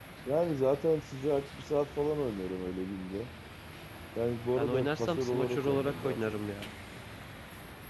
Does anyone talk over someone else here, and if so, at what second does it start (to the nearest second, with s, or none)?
5 s